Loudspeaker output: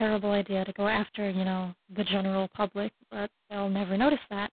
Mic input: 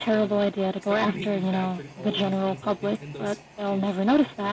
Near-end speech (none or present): present